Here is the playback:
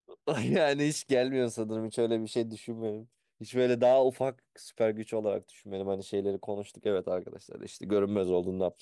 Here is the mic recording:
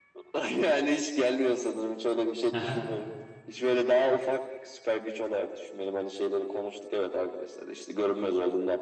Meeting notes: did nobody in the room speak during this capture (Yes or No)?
No